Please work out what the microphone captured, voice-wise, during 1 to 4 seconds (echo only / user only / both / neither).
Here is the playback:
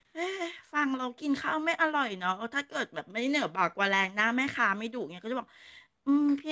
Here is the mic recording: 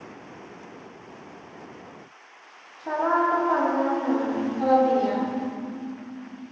user only